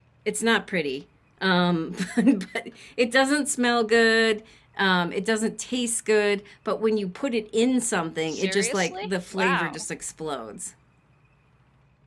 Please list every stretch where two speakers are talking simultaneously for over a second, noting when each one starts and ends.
8.3-9.8

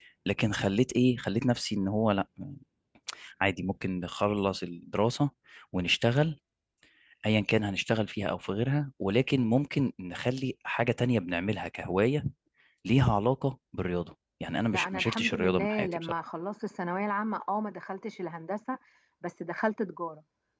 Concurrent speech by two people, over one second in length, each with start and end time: 14.7-16.2

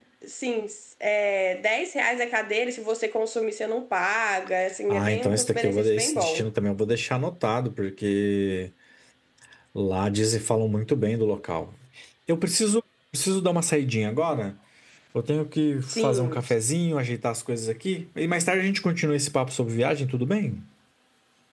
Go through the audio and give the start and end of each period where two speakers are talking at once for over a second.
4.9-6.4

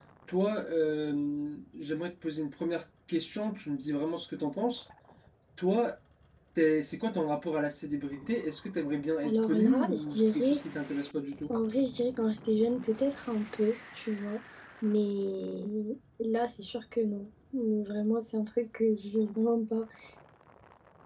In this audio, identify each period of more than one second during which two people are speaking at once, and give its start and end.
9.2-10.6

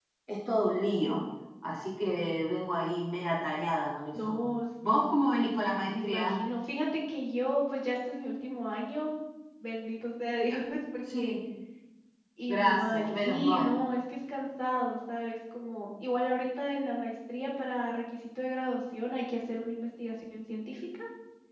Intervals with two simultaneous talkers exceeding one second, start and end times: 12.5-13.7

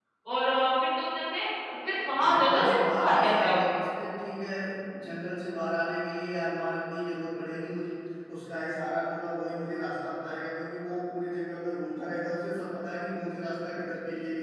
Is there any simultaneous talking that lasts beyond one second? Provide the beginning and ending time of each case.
2.3-3.7

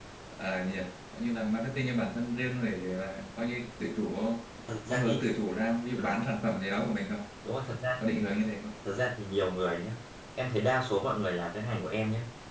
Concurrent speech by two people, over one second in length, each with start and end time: none

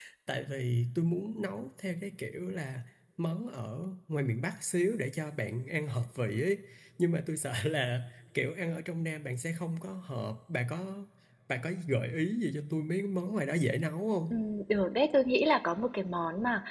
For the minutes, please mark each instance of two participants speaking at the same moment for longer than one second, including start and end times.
none

